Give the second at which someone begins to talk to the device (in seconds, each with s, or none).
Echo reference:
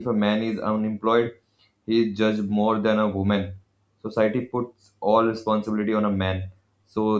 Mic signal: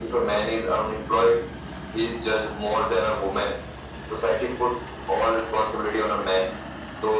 none